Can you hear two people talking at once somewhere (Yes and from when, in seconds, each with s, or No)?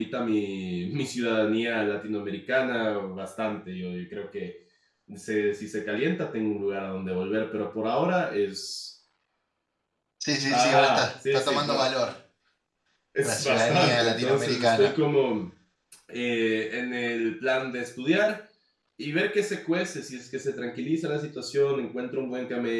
Yes, from 10.5 s